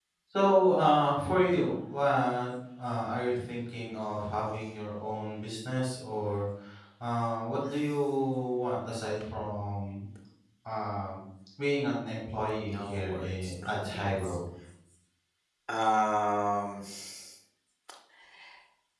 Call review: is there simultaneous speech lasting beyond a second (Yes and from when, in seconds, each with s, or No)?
Yes, from 12.6 s